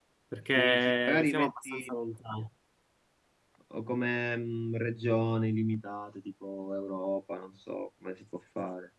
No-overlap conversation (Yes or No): No